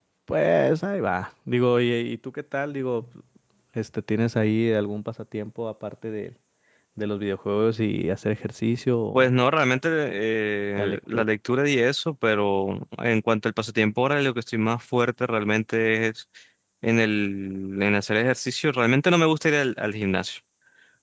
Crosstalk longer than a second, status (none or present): none